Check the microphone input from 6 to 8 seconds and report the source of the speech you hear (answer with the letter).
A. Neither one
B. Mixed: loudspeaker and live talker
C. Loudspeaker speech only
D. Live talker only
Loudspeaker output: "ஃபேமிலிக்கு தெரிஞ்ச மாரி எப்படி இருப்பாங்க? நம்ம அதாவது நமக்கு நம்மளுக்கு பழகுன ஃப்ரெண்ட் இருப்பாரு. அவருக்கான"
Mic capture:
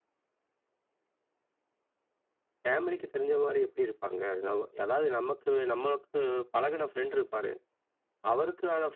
C